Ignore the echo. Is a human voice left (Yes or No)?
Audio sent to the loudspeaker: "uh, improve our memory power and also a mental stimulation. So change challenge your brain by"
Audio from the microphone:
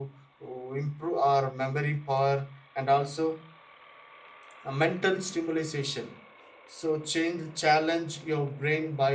No